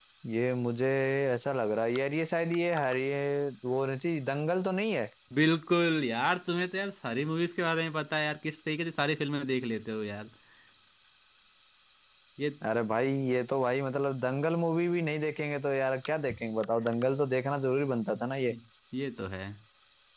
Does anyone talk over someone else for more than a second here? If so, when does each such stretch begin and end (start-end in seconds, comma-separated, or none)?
none